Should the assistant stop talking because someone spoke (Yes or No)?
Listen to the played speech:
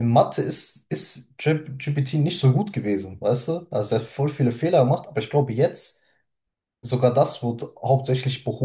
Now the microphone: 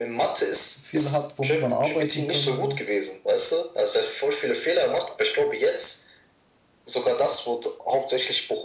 Yes